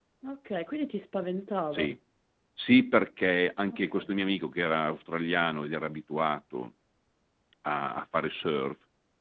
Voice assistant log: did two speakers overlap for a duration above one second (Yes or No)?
No